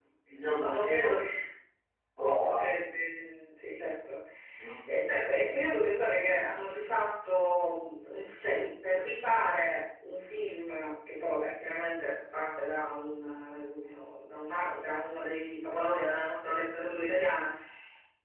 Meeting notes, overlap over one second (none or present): none